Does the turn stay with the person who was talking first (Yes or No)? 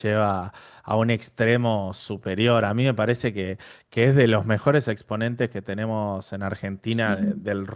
Yes